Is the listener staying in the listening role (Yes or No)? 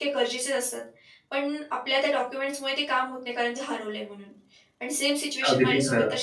Yes